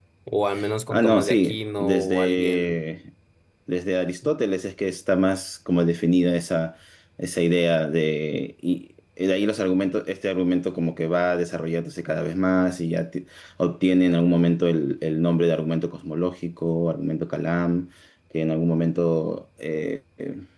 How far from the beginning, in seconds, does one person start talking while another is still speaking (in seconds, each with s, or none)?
0.9 s